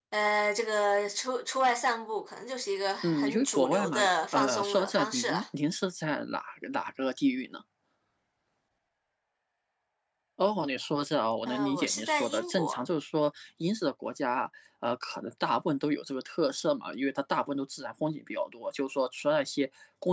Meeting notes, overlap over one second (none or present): present